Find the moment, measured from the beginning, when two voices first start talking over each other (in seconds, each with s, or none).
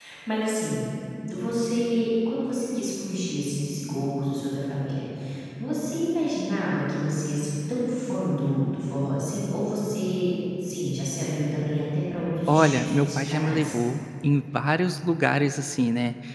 12.5 s